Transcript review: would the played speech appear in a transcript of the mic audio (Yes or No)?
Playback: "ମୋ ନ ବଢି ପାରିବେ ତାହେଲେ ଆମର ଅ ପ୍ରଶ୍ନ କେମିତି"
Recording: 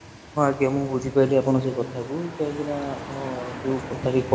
No